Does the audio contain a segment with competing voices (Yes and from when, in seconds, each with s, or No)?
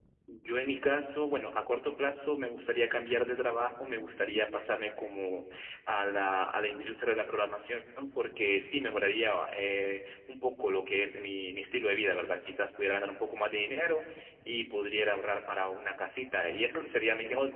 No